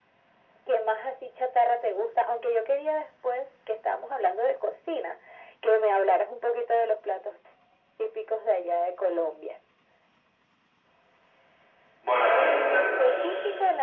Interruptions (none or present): present